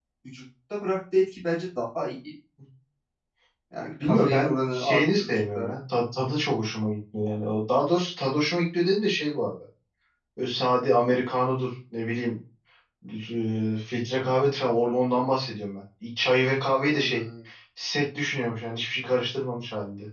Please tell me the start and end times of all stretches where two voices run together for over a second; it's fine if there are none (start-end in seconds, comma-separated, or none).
4.0-5.8